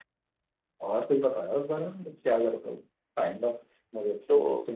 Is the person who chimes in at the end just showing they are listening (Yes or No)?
No